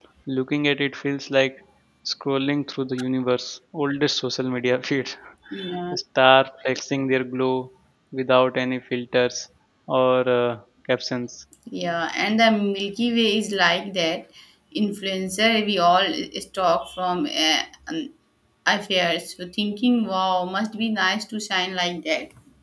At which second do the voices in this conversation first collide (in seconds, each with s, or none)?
none